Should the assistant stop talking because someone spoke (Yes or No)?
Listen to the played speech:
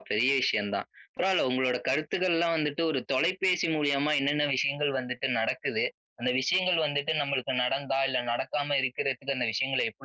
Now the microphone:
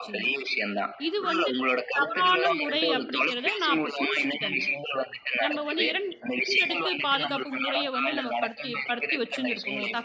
Yes